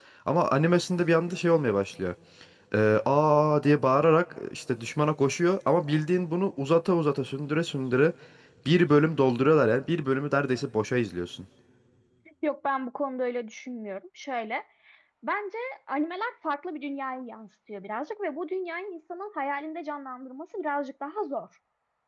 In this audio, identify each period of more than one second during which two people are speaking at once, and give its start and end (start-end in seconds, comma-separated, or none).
none